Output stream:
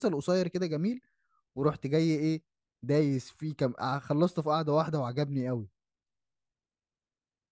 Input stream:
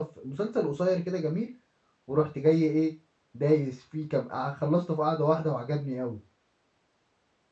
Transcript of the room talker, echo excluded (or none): none